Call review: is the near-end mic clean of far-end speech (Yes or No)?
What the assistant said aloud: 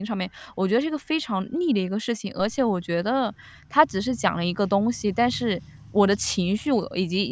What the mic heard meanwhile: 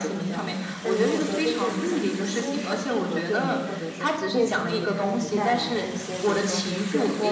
No